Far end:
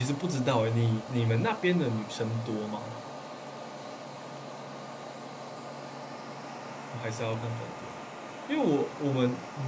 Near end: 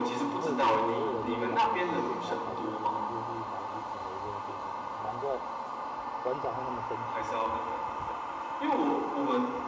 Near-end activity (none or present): present